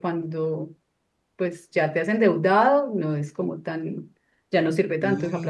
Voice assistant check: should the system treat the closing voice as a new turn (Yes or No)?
Yes